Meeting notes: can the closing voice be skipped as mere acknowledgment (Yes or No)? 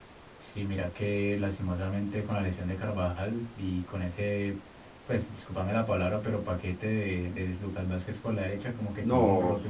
No